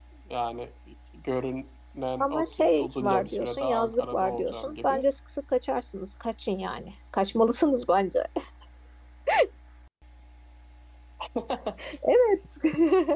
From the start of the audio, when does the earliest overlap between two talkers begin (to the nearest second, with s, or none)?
2 s